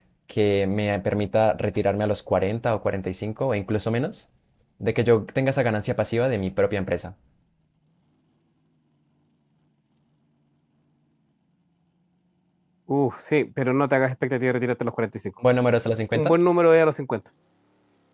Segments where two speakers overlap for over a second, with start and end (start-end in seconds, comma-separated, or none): none